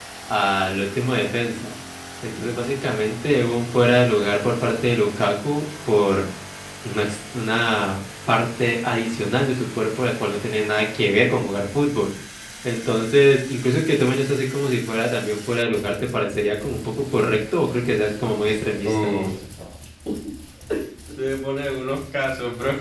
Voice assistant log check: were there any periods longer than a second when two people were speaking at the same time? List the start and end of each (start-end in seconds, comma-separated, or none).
none